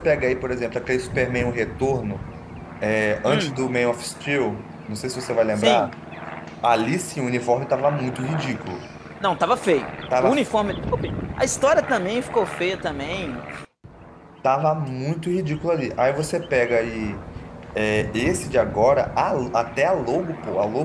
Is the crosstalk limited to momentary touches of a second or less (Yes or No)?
Yes